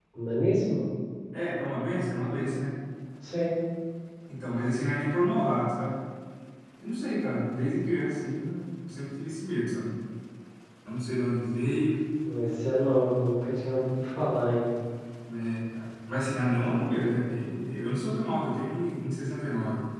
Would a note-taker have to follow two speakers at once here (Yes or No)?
No